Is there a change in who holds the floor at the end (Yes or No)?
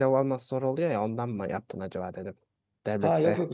Yes